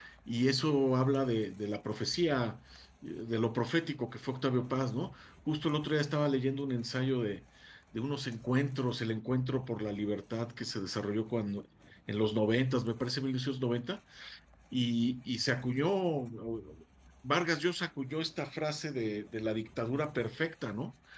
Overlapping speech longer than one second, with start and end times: none

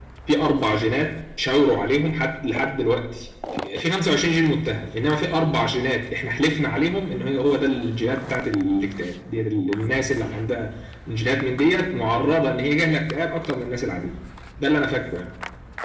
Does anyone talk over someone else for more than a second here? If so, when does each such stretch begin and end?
none

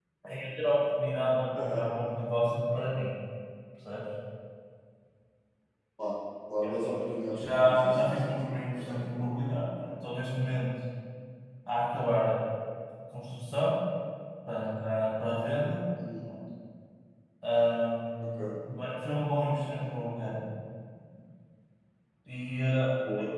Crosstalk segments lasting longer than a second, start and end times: 7.3-9.3

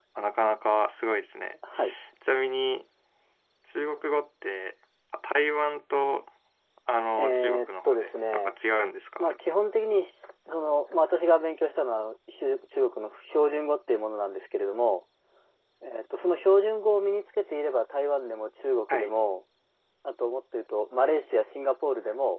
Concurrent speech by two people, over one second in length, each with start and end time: 7.2-8.6

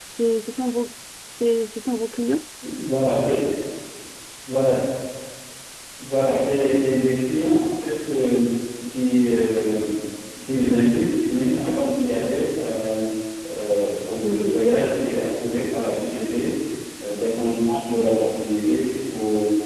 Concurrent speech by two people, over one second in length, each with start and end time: none

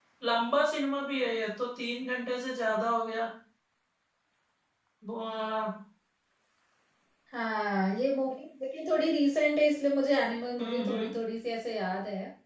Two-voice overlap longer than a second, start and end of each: none

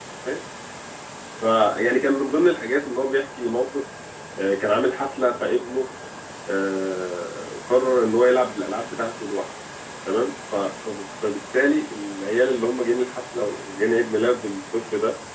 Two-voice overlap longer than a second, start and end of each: none

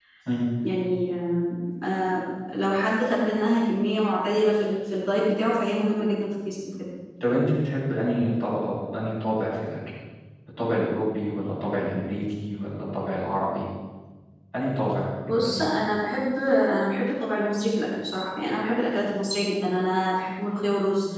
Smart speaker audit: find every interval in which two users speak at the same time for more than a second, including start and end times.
none

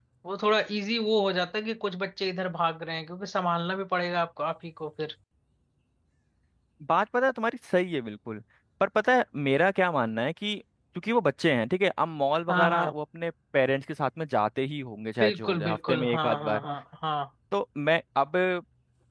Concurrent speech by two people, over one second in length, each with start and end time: 15.2-16.6

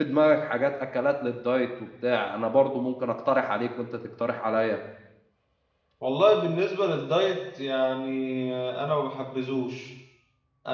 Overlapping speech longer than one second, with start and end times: none

